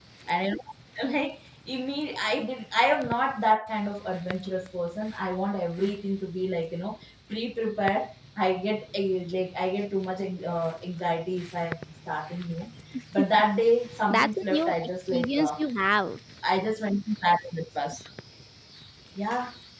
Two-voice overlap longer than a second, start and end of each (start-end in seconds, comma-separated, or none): 14.1-15.5